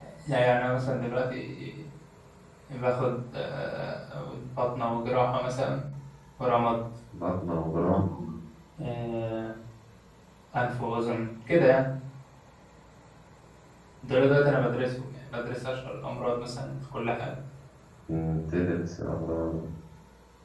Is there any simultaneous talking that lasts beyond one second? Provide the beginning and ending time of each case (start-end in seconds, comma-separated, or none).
none